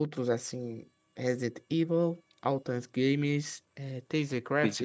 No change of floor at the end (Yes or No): Yes